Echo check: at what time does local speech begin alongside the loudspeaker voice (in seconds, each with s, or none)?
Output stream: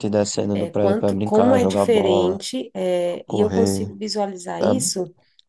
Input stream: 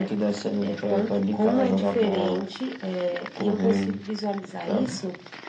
none